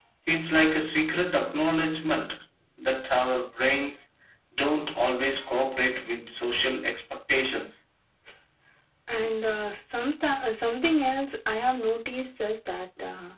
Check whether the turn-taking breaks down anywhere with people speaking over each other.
No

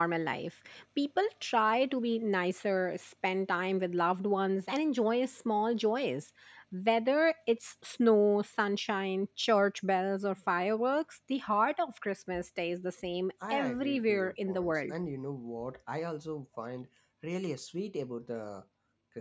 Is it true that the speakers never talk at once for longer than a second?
No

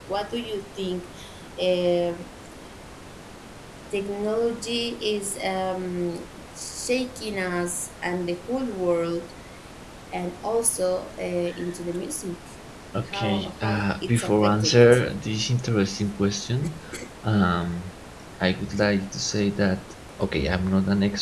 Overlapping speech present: Yes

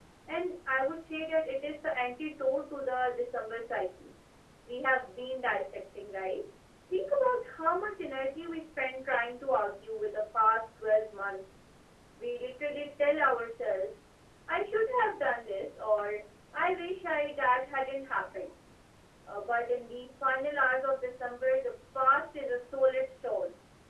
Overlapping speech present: No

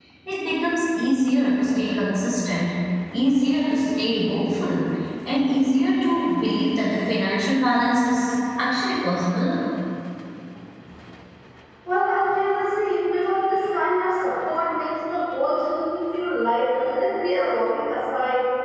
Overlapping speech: No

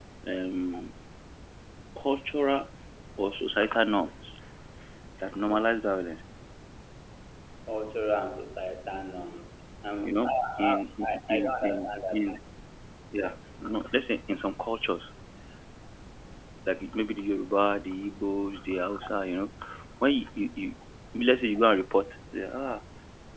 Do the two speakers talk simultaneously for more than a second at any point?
Yes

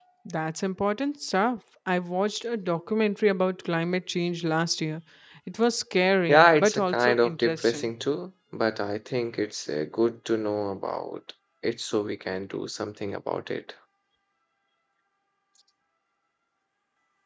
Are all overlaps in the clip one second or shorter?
No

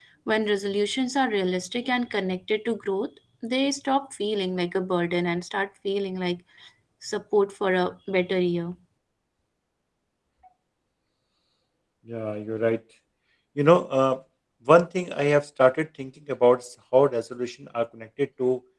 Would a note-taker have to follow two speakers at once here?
No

